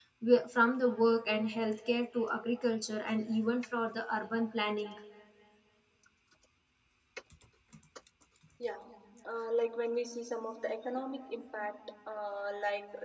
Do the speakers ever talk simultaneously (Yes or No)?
No